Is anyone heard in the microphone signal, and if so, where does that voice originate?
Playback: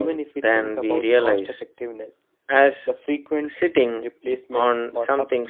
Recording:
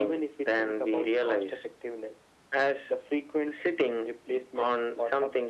echo only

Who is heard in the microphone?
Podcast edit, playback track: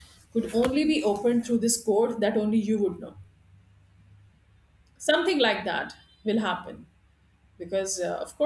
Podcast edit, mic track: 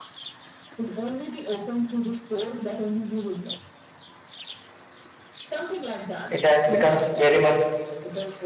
both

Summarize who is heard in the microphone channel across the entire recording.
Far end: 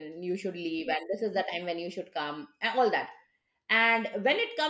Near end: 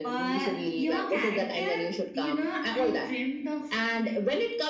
both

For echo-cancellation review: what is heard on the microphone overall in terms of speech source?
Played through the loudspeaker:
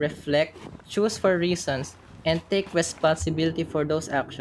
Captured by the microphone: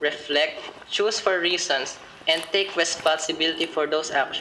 echo only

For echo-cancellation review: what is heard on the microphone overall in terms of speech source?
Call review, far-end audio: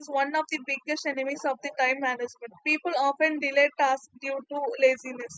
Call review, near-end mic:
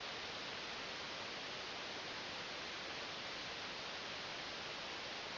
neither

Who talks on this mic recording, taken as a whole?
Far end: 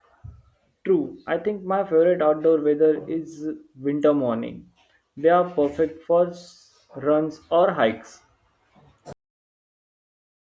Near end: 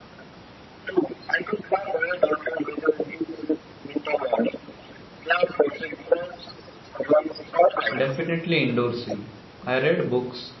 both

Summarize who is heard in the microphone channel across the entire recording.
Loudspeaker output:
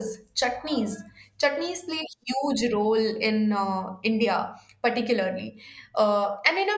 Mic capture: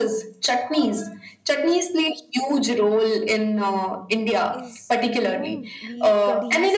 both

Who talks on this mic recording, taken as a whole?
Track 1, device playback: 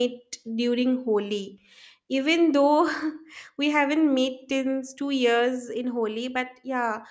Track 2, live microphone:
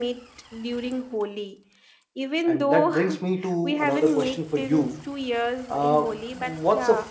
both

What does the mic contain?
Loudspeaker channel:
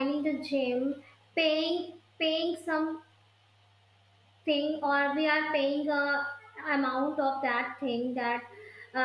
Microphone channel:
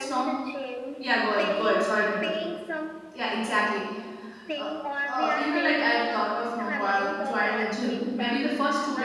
both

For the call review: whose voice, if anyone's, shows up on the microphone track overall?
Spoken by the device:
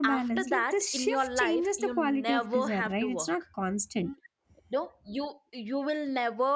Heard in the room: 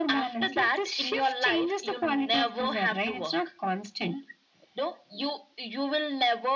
echo only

